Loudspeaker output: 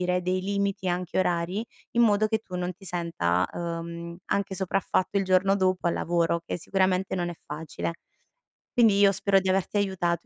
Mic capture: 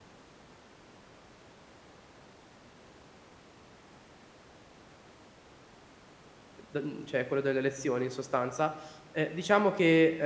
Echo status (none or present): none